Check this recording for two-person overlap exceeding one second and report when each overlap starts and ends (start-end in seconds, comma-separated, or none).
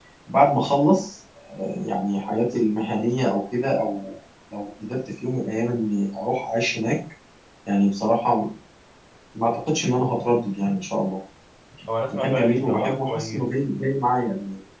12.1-13.5